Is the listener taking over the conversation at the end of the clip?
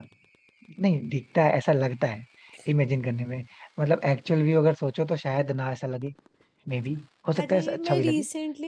Yes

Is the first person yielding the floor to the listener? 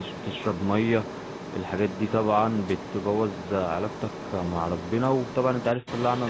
No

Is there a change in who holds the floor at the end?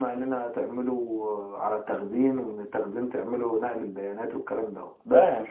Yes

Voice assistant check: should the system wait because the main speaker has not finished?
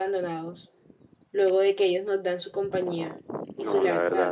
No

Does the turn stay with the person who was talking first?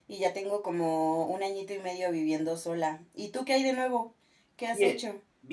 No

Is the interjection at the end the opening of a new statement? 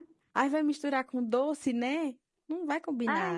Yes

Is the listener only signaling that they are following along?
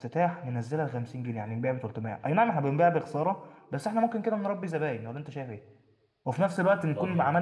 Yes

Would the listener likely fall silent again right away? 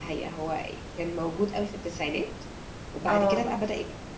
Yes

